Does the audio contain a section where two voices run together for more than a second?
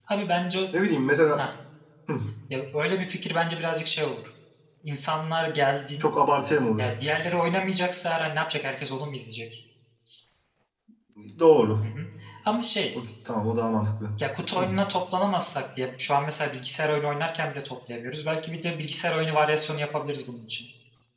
No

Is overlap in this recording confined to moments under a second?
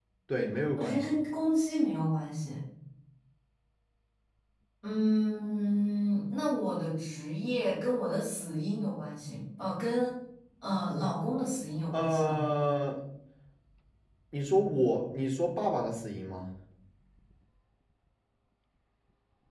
Yes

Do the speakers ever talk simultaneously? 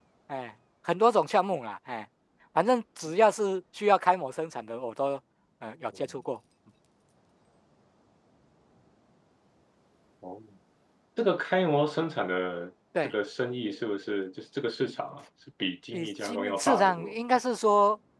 Yes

